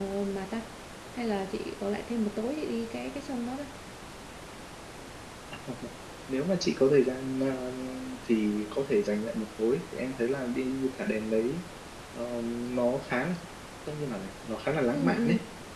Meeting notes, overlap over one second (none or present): none